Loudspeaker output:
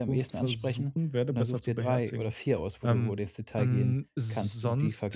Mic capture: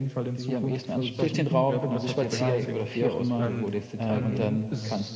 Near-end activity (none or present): present